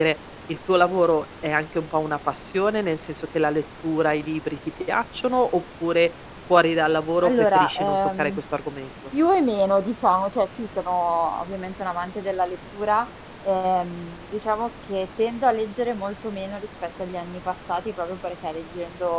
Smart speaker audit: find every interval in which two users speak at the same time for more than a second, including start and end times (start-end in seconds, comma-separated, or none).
7.2-8.4